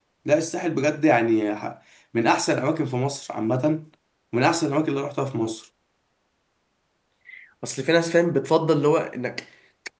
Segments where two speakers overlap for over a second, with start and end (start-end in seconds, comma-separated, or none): none